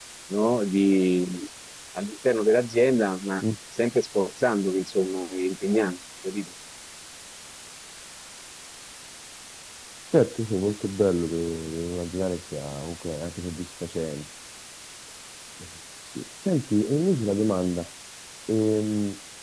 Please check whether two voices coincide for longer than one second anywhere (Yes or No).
No